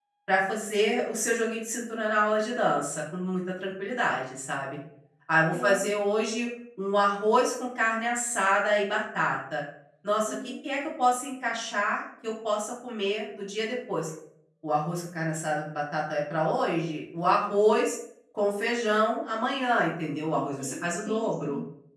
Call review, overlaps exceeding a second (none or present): present